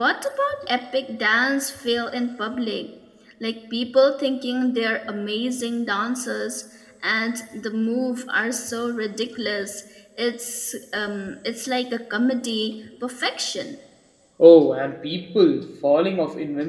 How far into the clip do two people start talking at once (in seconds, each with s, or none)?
none